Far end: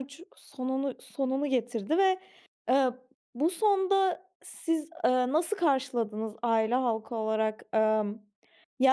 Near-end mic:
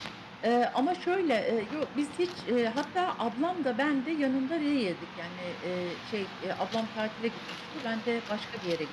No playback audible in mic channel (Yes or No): Yes